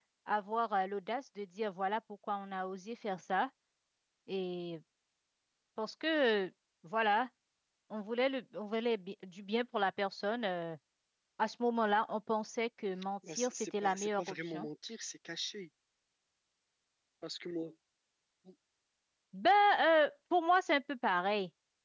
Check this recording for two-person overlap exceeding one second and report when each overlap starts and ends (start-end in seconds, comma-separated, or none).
13.3-14.7